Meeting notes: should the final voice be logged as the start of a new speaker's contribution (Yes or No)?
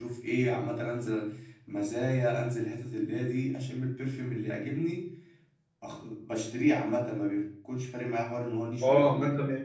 Yes